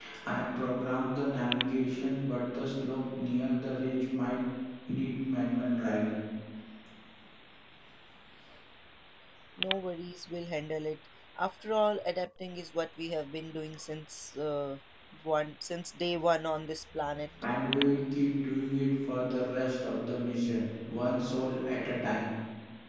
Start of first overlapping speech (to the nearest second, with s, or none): none